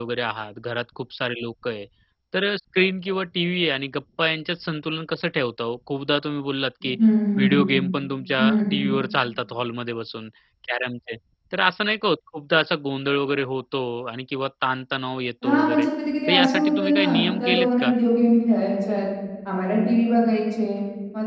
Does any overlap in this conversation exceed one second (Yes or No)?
Yes